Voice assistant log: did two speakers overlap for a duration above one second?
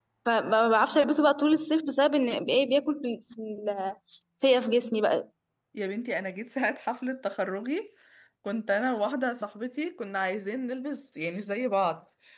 No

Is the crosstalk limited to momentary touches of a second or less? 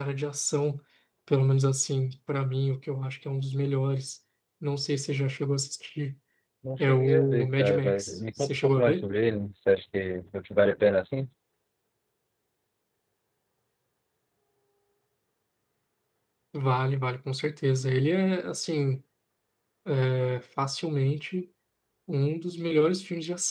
No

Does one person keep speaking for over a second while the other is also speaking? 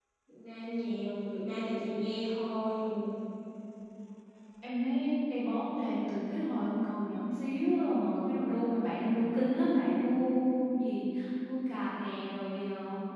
No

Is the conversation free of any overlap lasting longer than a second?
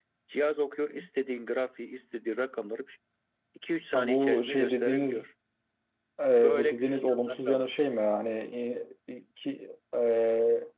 No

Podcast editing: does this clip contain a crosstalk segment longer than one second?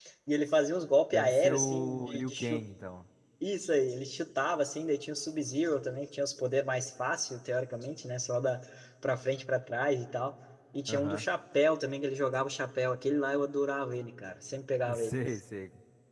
Yes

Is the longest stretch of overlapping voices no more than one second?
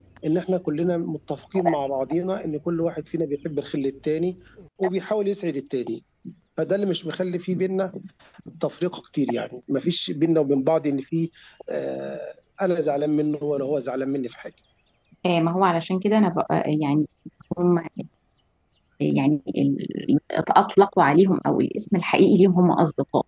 Yes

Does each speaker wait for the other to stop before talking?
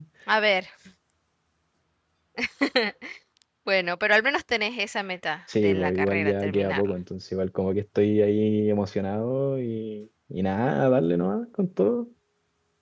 No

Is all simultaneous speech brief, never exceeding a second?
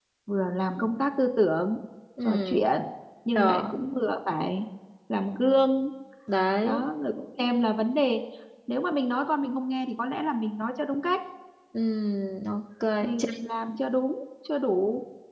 Yes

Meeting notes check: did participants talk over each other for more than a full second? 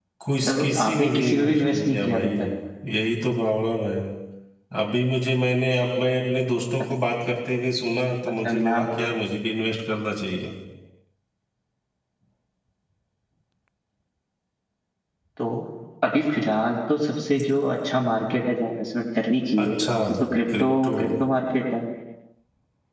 Yes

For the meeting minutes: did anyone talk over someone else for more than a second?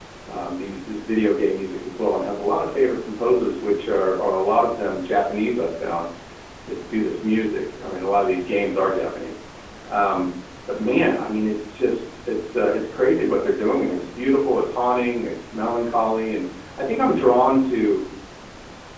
No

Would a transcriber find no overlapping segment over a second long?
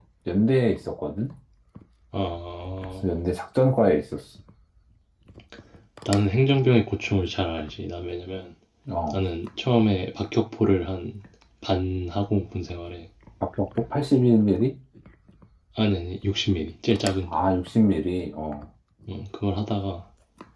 Yes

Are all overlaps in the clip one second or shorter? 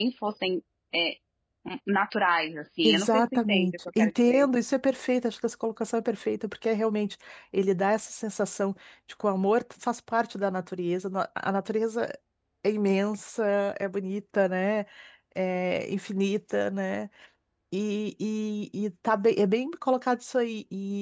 No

